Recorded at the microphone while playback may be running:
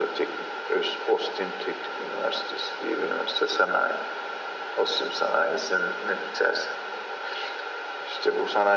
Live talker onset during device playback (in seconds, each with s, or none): none